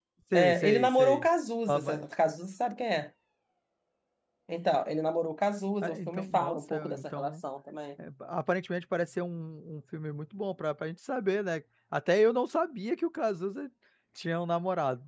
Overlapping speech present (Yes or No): Yes